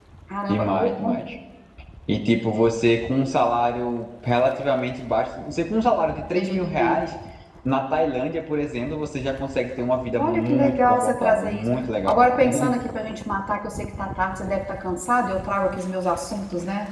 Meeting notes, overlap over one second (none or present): present